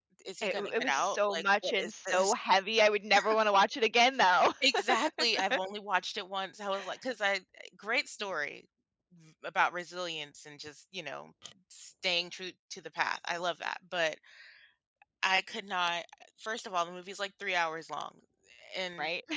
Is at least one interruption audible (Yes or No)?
Yes